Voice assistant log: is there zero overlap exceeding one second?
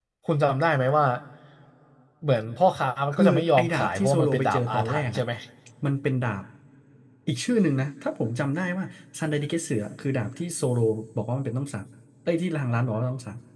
No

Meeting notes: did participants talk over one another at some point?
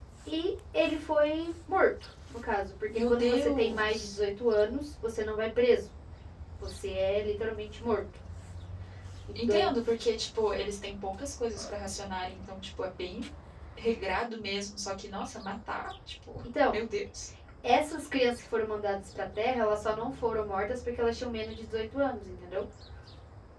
Yes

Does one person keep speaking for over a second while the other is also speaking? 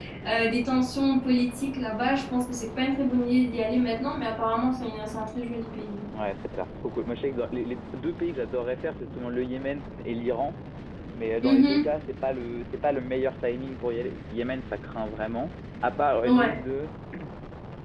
No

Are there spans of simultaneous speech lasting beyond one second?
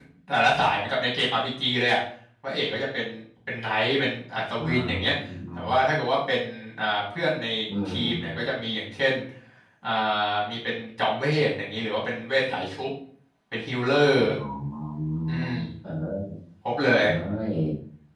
No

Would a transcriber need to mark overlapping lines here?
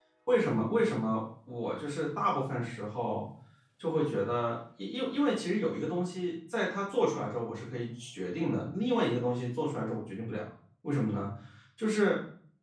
No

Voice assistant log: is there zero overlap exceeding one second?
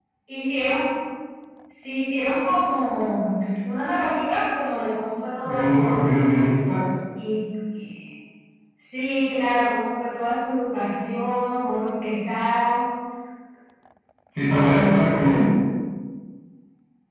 Yes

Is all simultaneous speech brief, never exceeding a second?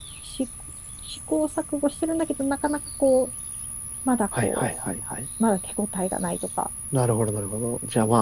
Yes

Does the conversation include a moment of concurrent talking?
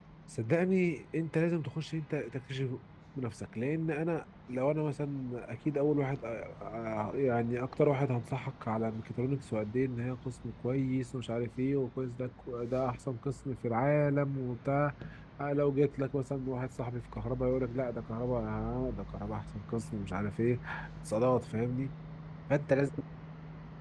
No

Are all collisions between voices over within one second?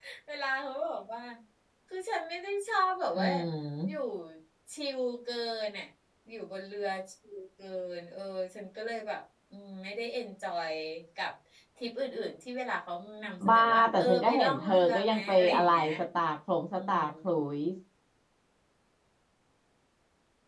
No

